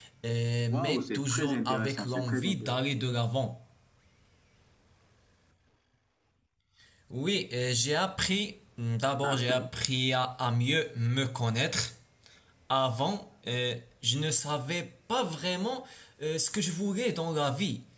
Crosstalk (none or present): present